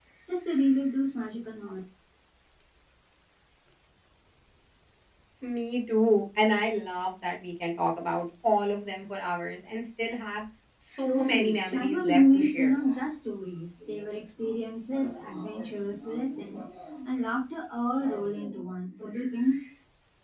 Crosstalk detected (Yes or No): Yes